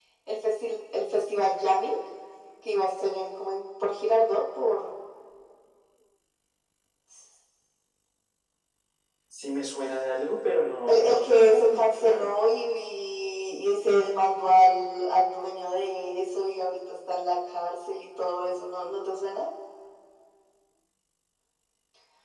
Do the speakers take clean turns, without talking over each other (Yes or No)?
No